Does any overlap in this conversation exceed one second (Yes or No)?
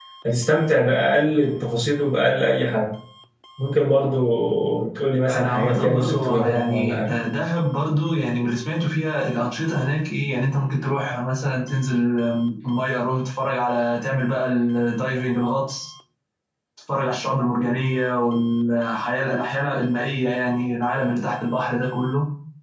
Yes